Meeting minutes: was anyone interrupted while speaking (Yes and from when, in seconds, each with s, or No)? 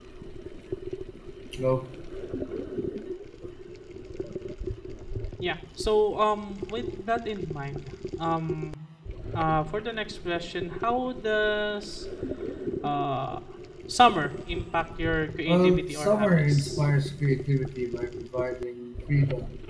Yes, from 15.4 s